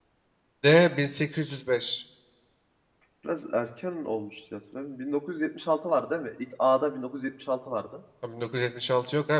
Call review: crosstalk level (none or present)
none